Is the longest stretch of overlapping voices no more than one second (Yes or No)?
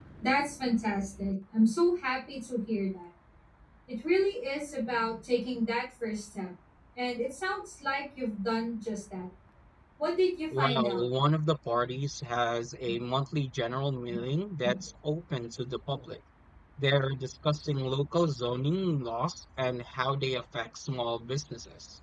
Yes